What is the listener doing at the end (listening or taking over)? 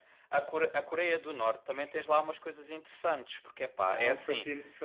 taking over